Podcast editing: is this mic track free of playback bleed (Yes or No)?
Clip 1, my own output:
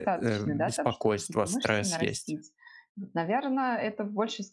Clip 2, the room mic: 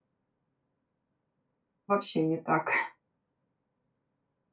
Yes